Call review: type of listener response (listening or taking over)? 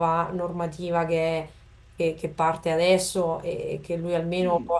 listening